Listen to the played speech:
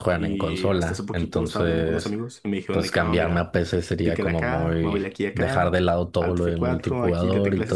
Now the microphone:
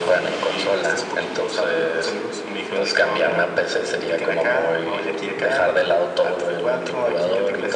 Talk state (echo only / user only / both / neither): echo only